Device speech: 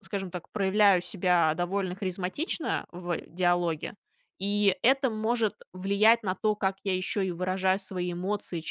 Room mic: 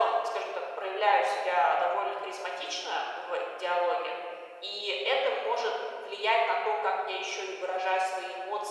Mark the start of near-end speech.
none

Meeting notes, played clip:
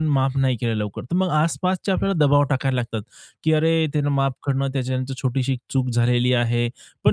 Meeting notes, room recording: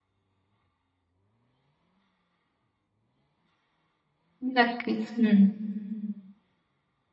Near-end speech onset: 4.5 s

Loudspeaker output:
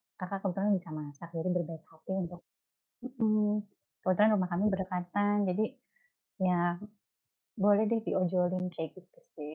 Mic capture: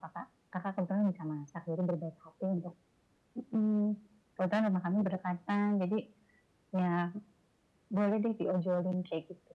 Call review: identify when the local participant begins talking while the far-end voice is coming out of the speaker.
none

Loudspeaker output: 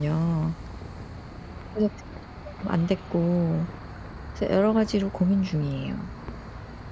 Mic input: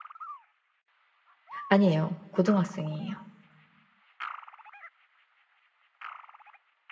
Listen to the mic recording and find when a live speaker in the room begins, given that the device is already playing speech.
1.6 s

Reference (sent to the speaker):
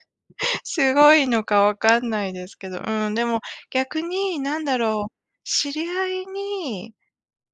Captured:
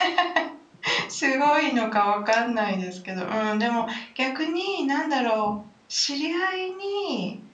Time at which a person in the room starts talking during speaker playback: none

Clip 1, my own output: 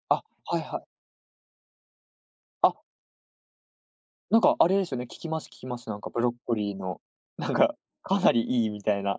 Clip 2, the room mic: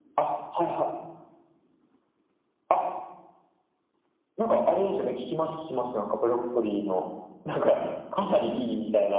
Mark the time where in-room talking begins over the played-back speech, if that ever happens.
none

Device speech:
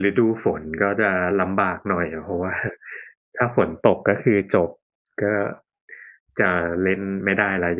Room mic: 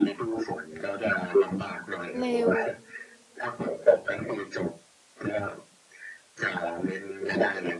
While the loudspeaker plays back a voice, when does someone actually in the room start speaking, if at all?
2.2 s

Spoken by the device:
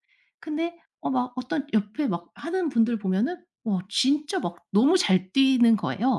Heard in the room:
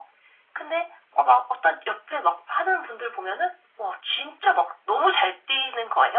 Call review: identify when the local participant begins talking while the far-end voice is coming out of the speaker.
none

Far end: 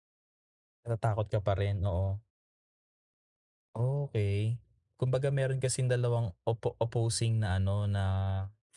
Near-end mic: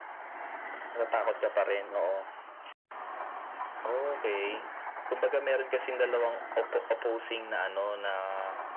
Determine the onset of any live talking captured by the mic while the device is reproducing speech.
none

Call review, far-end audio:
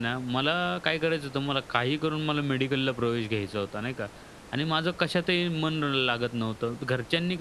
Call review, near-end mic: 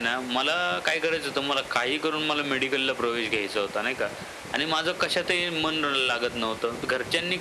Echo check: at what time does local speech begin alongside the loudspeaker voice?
none

